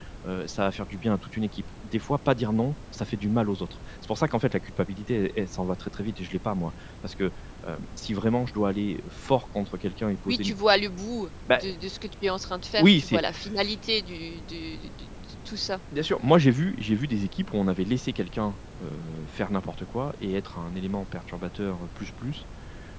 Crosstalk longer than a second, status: none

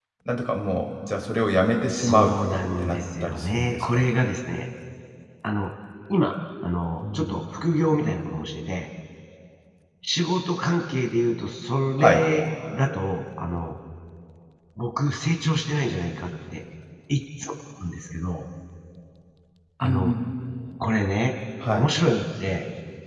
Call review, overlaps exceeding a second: present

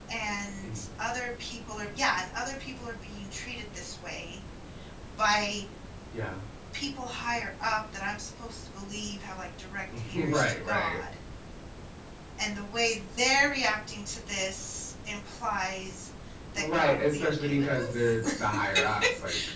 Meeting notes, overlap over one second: present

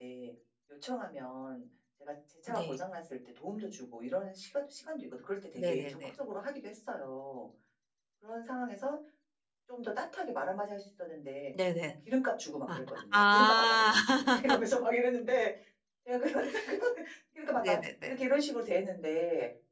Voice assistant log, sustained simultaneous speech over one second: present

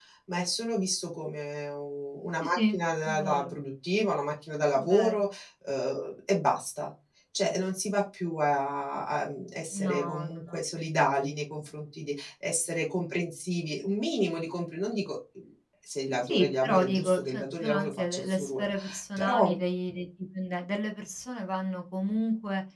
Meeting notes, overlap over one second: present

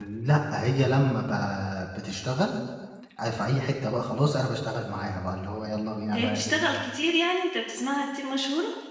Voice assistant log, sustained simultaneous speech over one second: none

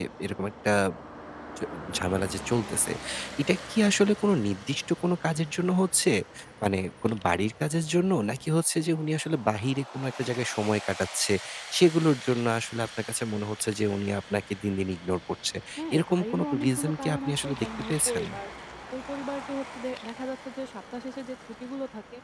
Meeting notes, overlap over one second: present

